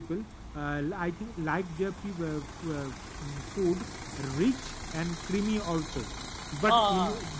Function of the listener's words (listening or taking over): listening